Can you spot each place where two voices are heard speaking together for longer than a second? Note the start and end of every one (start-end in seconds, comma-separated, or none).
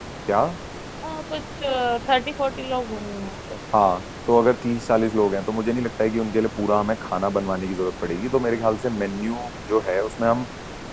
none